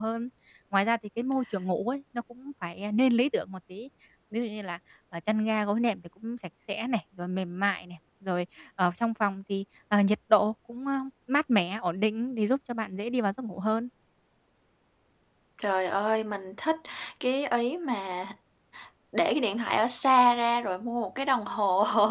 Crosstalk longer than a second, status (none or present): none